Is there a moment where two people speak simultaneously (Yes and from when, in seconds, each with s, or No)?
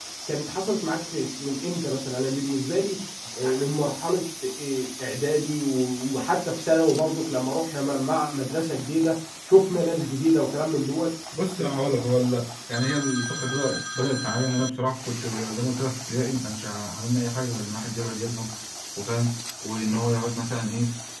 No